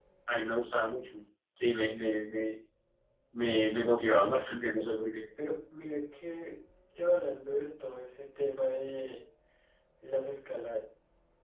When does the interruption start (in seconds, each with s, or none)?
none